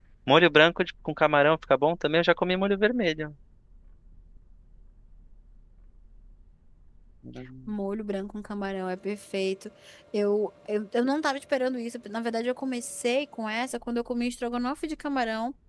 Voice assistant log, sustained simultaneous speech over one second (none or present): none